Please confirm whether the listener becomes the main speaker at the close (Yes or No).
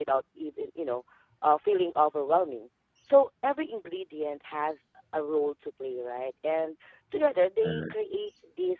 No